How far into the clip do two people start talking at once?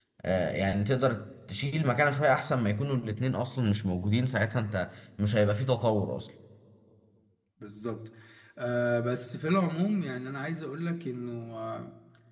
none

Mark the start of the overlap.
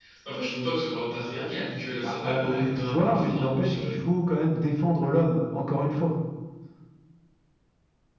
2 s

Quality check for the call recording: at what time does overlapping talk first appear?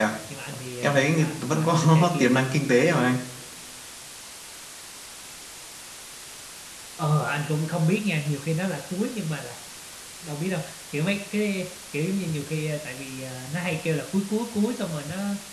1 s

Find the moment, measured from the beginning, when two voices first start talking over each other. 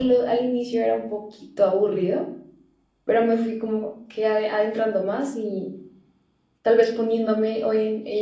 none

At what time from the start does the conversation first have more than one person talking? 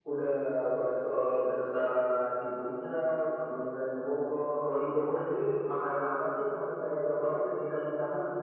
none

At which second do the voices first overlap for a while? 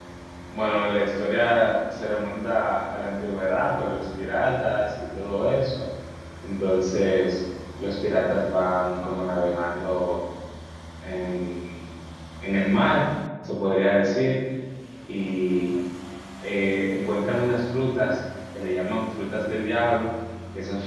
none

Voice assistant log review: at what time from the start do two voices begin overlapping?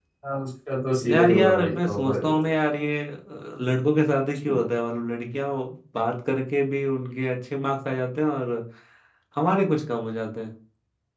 1 s

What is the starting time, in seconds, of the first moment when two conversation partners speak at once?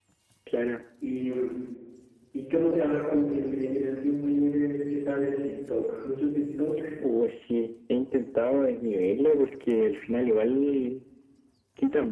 none

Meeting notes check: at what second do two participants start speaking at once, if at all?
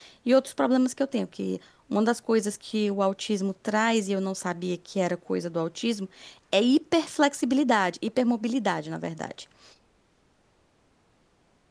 none

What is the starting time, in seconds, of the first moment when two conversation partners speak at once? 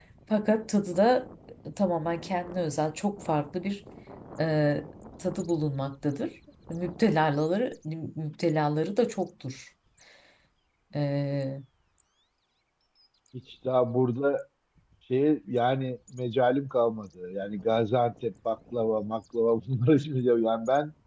none

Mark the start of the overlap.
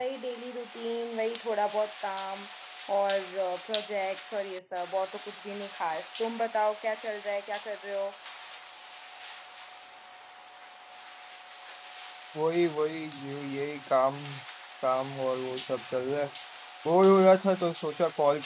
none

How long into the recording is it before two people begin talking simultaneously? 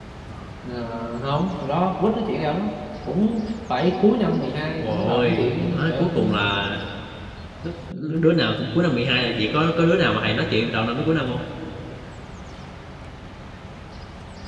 5 s

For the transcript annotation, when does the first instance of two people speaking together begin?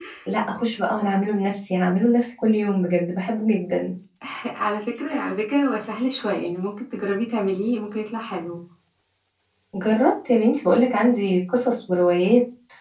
none

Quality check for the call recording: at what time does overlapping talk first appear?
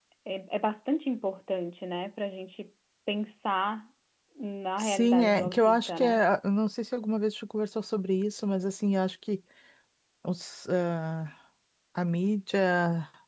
5 s

